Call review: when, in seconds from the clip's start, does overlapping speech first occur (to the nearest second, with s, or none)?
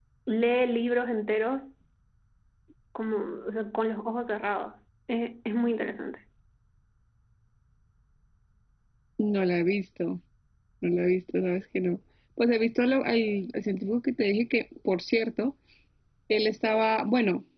none